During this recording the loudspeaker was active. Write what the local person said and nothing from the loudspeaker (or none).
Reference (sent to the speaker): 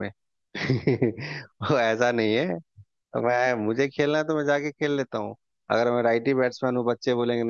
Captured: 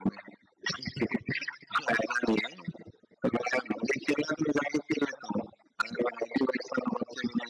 none